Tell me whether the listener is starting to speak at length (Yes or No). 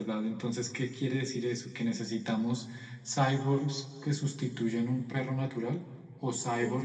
No